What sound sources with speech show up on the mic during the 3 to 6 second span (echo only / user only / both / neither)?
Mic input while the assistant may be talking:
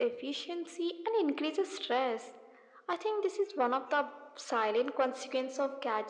echo only